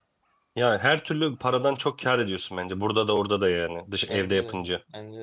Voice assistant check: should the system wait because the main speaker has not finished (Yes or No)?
No